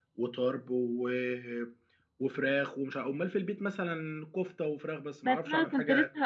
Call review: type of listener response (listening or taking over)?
taking over